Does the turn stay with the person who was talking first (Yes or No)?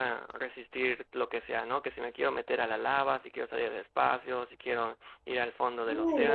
No